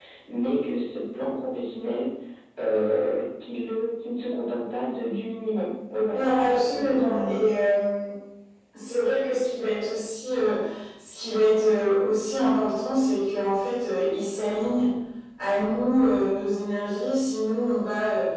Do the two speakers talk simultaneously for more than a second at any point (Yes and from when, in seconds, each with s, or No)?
Yes, from 6.1 s